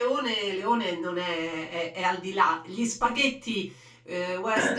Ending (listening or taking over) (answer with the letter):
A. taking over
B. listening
B